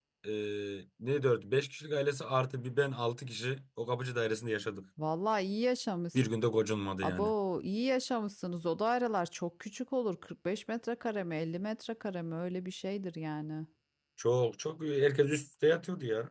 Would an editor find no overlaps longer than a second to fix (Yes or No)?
Yes